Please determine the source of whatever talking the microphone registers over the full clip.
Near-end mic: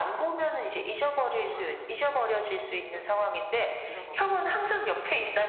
both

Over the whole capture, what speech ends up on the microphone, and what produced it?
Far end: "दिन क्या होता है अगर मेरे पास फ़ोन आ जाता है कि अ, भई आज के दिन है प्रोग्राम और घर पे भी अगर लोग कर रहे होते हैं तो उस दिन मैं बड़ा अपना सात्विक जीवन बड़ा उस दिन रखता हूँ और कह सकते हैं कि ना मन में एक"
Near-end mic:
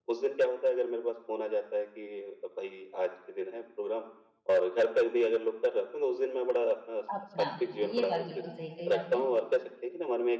both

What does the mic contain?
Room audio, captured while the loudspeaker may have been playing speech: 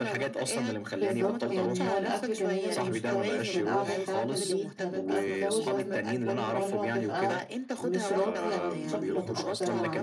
both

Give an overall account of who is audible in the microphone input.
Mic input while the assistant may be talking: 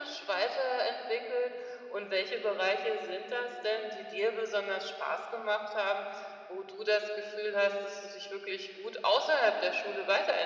echo only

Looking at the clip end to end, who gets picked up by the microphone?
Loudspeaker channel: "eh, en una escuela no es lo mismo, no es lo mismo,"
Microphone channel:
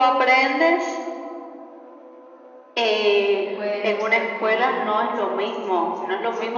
both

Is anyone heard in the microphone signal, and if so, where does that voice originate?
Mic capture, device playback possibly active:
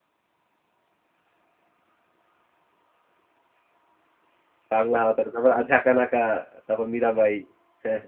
user only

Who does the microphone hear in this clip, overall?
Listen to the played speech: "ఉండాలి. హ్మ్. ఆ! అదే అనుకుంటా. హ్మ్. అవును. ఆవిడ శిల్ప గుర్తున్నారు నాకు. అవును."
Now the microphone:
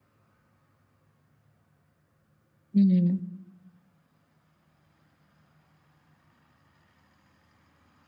user only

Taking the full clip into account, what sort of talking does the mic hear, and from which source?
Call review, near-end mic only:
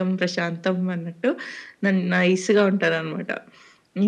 echo only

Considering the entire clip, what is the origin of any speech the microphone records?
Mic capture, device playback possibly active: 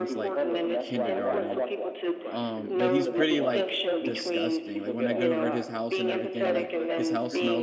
both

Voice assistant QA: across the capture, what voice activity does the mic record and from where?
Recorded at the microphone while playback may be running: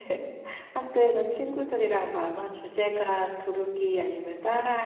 user only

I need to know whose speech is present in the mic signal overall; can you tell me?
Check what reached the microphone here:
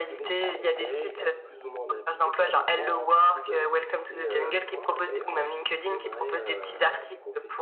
both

